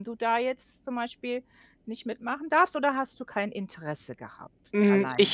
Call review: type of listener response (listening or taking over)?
taking over